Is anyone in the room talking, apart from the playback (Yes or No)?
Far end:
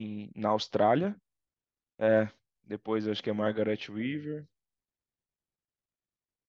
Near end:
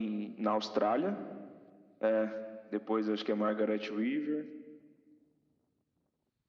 No